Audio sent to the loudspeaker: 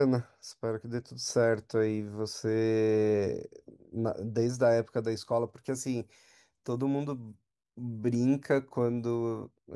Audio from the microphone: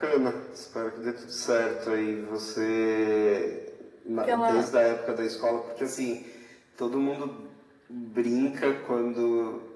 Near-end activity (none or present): present